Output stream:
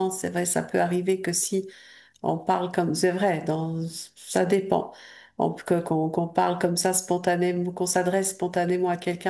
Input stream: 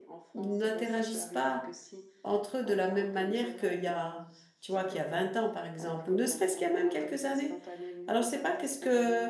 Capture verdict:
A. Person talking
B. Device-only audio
A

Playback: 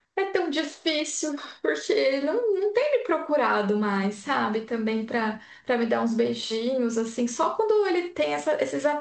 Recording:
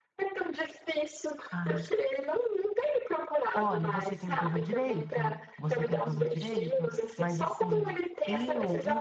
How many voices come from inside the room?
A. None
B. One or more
B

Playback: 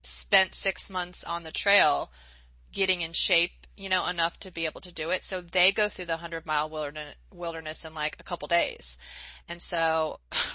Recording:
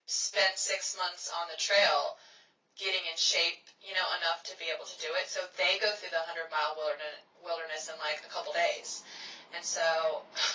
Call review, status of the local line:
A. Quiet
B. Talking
A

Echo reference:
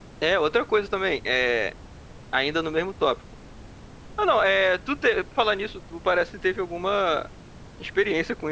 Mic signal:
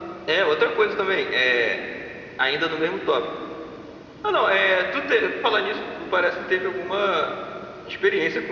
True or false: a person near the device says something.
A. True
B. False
B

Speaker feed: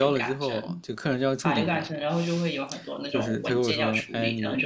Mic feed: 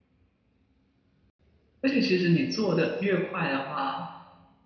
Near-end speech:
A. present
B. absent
A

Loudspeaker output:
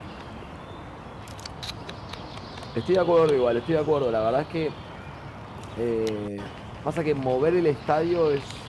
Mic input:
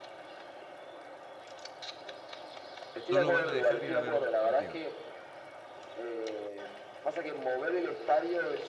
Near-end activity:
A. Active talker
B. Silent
A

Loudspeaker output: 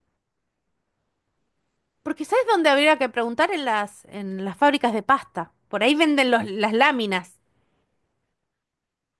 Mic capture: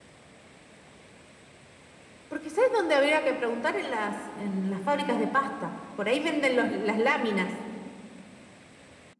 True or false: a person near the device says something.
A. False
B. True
A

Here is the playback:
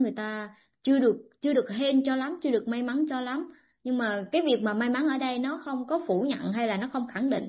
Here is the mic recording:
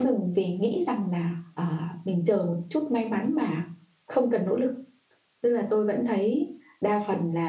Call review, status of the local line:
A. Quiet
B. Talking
B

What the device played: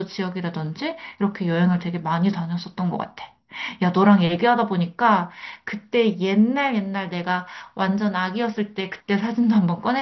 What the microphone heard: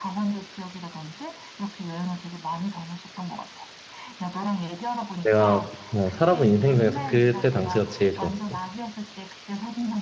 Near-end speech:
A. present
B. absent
A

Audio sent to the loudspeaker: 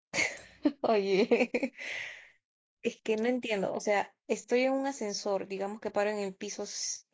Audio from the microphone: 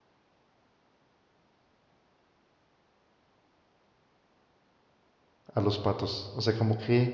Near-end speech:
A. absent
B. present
B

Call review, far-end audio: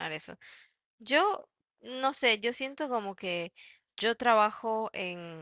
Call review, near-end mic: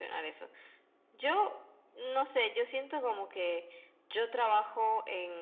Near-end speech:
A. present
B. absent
B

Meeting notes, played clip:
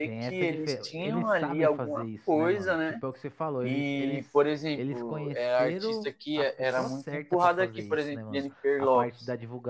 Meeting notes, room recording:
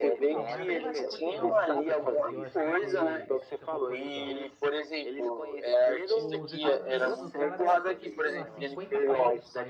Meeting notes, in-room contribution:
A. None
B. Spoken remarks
B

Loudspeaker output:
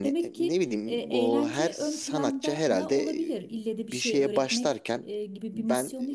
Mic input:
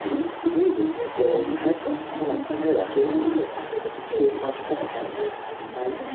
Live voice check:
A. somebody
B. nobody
B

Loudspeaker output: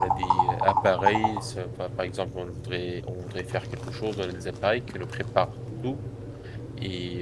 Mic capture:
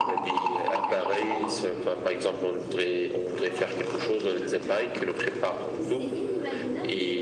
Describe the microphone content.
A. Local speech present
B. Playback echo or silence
A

